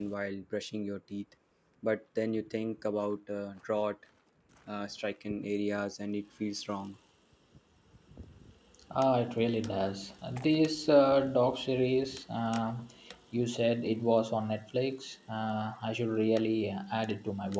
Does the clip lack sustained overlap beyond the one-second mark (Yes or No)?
Yes